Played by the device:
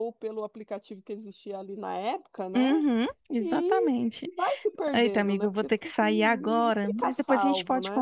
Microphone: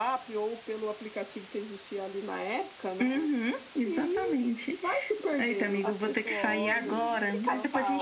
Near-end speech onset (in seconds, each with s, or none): 5.8 s